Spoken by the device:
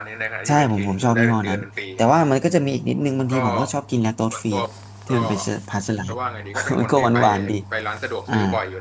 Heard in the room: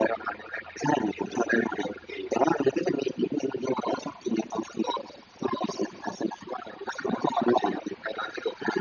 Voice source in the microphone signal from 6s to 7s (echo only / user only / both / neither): echo only